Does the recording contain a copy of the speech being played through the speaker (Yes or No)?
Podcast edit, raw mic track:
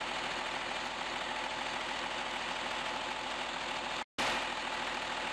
No